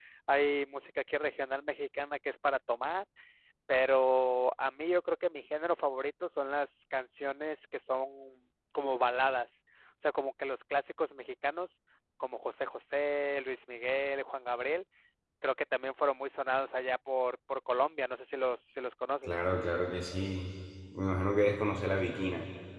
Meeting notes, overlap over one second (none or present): none